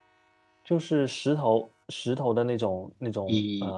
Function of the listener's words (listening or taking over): taking over